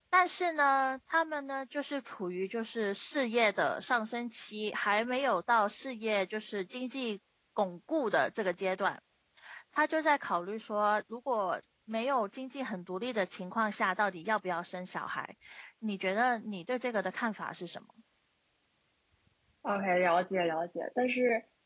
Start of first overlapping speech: none

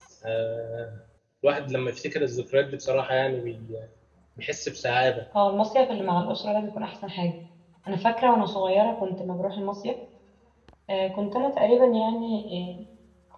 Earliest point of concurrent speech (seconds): none

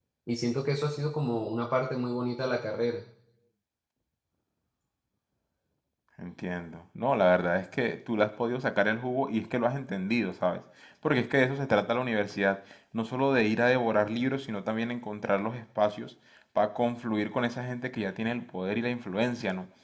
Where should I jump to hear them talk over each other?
none

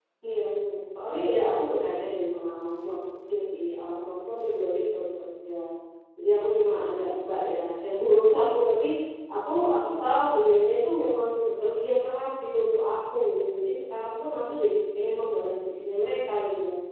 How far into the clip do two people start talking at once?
none

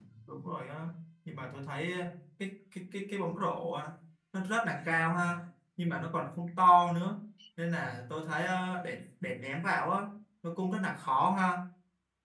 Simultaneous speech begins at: none

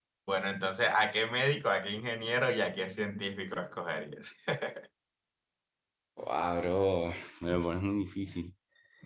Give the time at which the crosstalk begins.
none

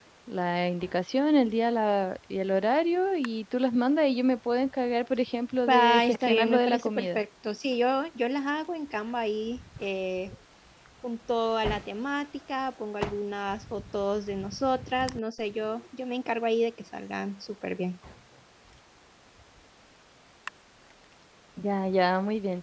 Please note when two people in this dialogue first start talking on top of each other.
6 s

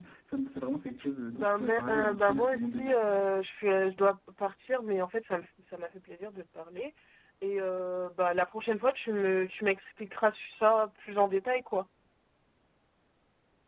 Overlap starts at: 1 s

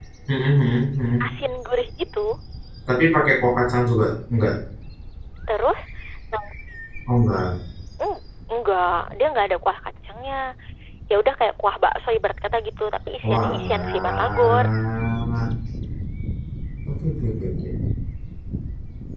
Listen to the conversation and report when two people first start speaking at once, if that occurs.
13 s

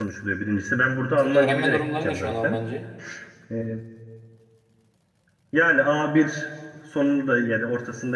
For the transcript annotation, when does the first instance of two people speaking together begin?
1 s

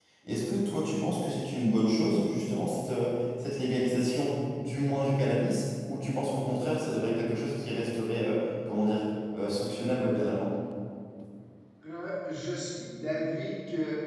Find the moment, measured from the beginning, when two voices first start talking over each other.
none

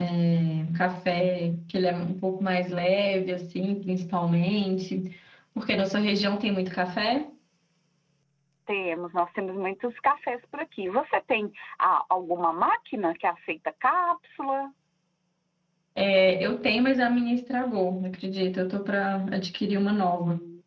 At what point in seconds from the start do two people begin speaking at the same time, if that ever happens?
none

